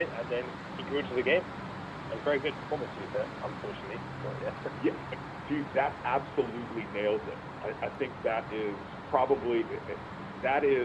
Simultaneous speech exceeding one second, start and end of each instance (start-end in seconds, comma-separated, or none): none